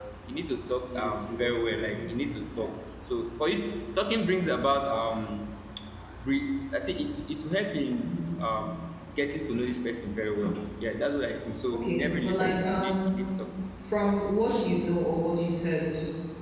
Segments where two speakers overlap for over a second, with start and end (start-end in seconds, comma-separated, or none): 11.7-13.2